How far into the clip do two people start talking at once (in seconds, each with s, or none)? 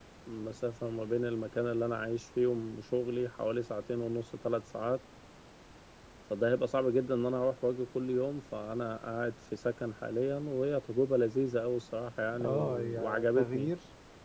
12.3 s